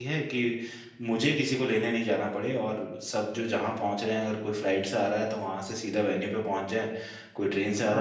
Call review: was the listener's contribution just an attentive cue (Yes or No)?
No